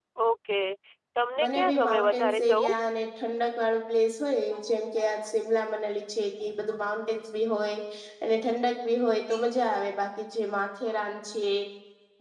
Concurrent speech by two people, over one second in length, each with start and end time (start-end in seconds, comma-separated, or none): 1.4-2.7